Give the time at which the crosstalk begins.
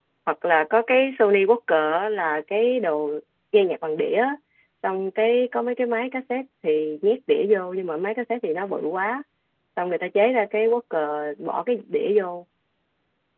none

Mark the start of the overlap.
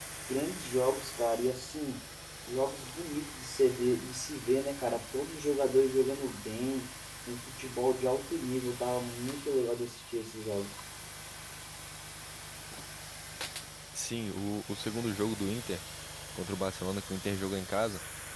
none

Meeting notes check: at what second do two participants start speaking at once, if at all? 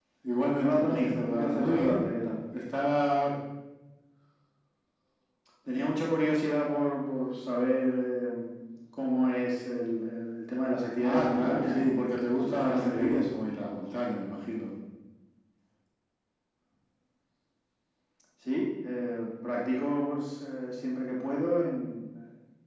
0.6 s

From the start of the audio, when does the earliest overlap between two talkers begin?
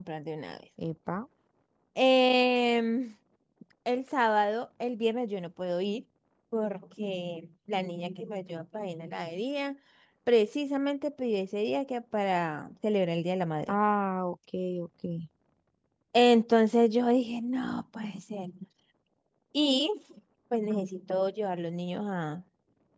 none

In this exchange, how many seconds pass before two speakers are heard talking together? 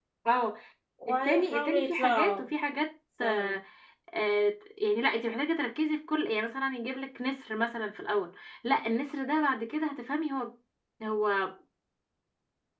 1.1 s

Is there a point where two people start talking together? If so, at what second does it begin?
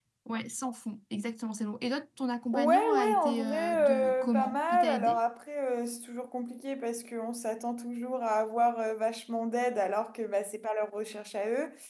2.5 s

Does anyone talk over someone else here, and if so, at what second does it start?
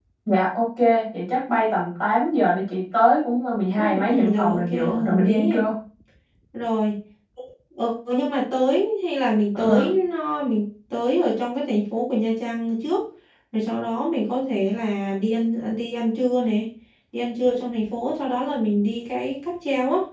3.8 s

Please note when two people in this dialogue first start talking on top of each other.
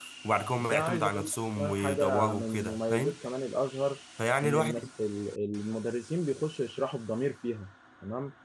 0.6 s

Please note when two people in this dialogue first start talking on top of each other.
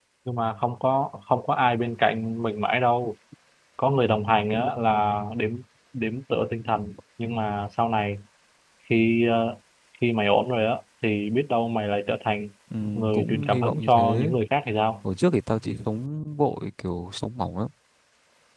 12.9 s

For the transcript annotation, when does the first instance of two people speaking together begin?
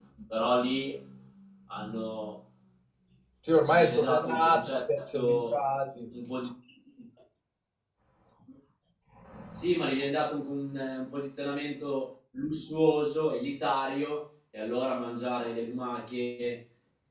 3.7 s

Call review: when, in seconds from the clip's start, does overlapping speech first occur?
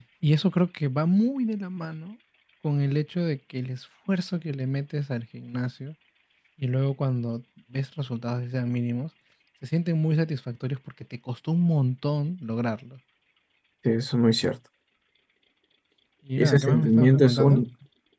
16.4 s

